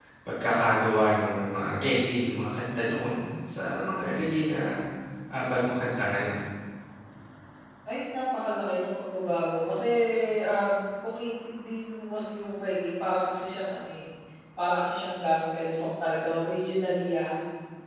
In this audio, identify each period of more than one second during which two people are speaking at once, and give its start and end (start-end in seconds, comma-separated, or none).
none